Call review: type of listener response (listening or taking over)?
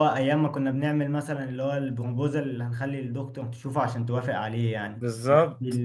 listening